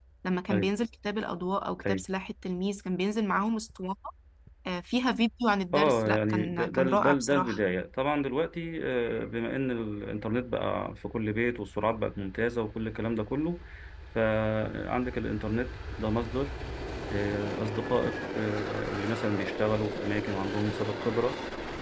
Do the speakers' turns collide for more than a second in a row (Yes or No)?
Yes